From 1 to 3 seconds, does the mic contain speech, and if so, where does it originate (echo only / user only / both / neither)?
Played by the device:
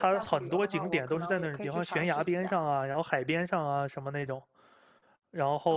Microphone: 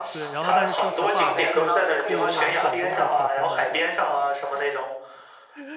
both